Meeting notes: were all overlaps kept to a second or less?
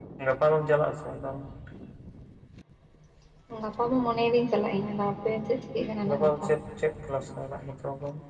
Yes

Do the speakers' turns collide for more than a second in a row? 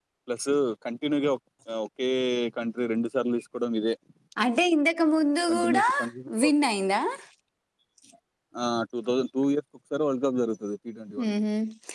No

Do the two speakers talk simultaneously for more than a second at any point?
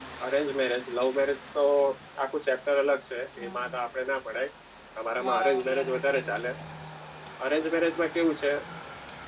Yes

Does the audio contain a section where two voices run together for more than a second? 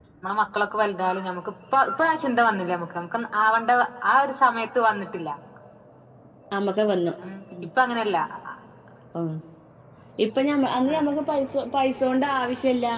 No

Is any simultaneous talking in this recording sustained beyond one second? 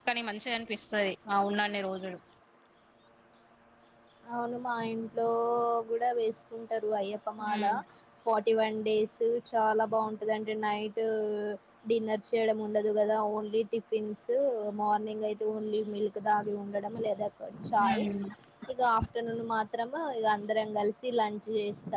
No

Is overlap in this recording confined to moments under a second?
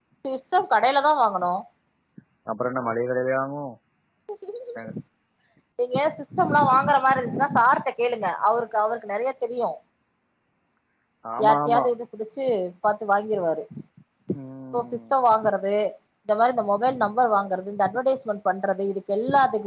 Yes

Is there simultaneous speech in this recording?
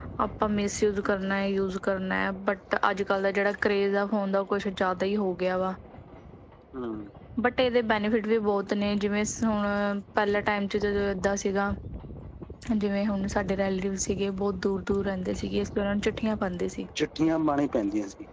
No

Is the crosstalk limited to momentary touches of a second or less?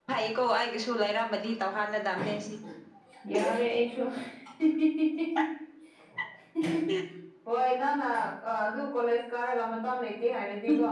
Yes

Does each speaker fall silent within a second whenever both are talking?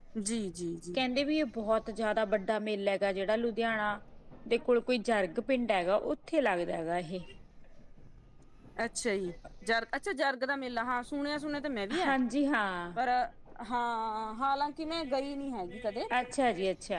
Yes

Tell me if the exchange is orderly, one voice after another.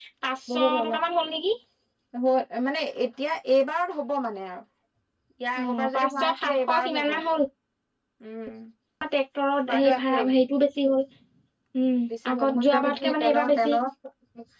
No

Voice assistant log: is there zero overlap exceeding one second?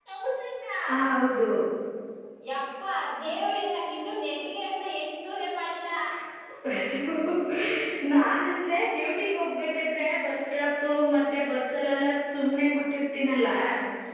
Yes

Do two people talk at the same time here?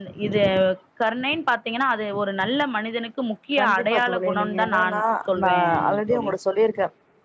Yes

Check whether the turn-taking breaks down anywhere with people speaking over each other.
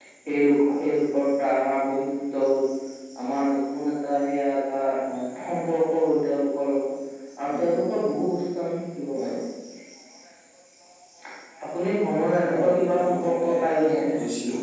Yes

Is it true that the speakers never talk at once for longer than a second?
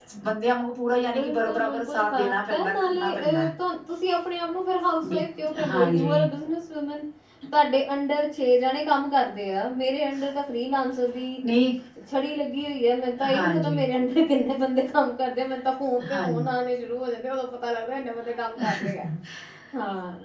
No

